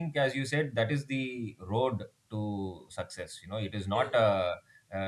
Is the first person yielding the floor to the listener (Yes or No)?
No